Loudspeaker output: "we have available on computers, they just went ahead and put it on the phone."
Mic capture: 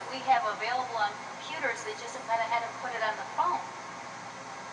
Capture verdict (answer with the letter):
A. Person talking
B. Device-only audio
B